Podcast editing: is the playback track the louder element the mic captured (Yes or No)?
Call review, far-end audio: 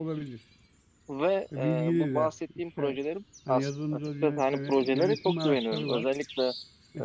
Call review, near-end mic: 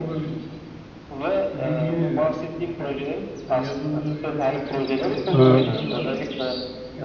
No